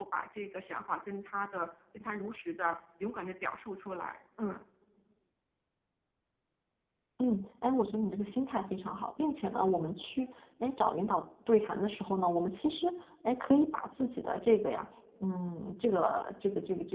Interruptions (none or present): none